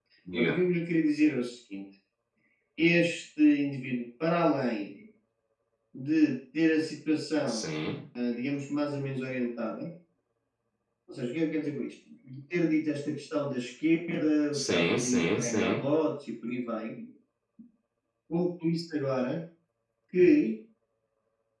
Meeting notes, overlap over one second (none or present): present